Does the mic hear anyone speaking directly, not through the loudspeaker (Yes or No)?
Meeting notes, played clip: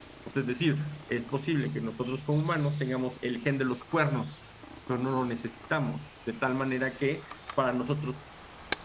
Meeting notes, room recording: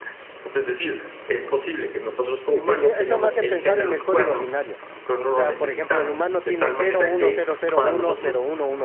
Yes